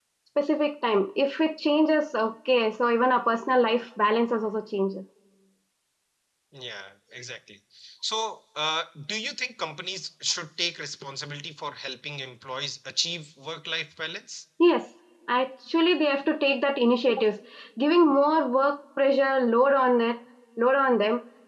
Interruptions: none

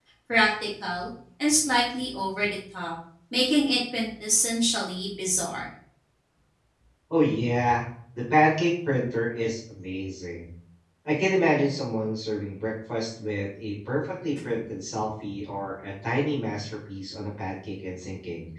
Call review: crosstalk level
none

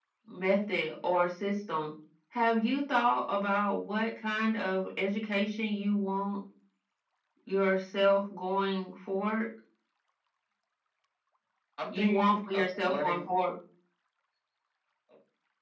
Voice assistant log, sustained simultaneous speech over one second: present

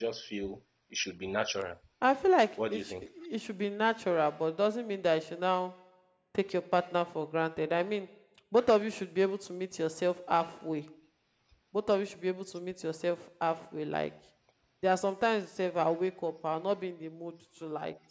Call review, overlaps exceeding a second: none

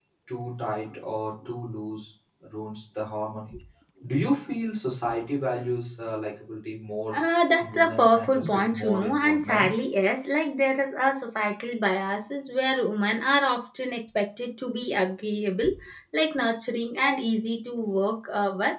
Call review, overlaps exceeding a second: present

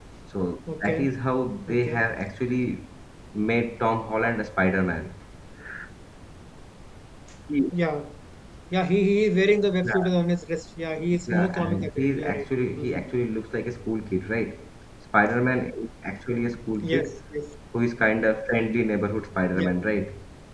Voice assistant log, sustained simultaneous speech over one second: present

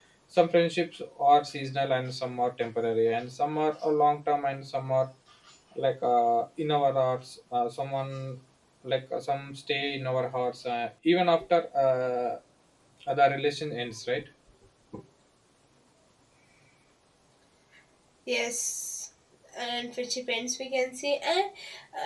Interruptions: none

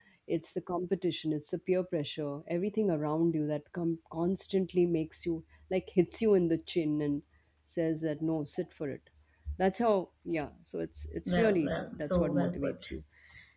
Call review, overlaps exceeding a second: present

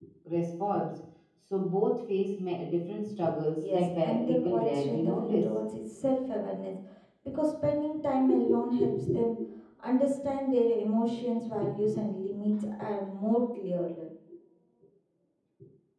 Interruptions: present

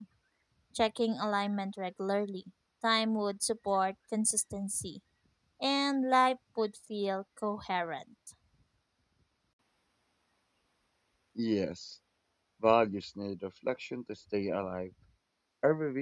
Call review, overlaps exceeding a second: none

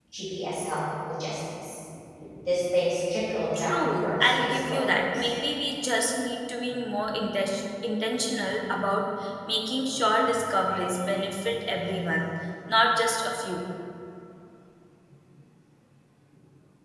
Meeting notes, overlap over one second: present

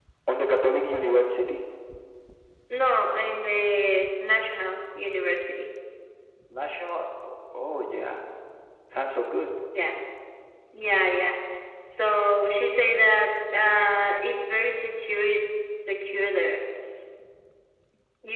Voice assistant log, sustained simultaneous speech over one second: none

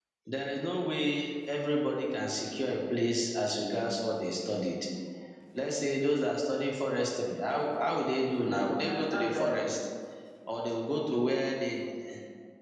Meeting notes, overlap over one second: present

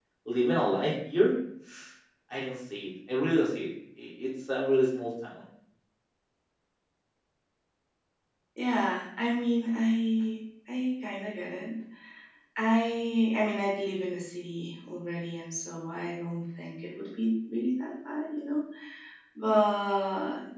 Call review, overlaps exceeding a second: none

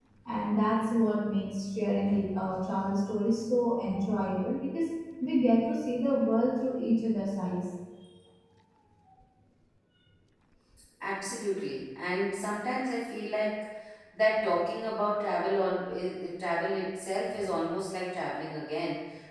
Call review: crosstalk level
none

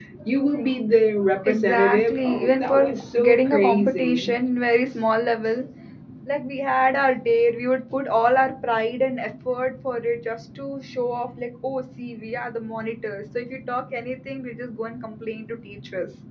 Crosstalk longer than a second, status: present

